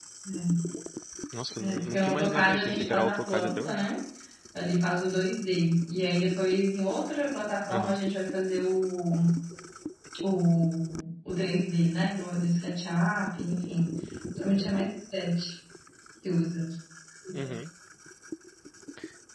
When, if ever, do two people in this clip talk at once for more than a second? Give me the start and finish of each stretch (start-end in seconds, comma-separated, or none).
1.6-3.9